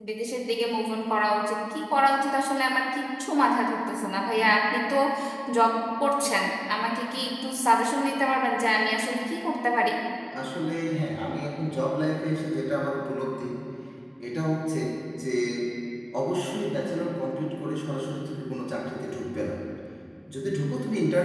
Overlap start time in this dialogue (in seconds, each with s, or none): none